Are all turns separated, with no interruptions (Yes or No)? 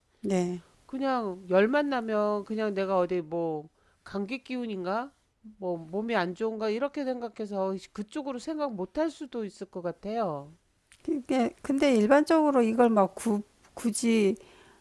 Yes